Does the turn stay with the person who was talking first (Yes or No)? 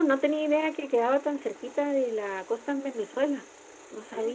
No